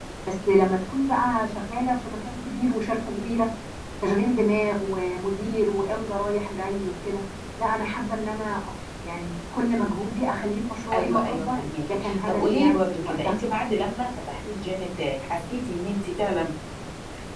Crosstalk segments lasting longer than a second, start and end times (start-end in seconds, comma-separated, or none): 10.9-13.4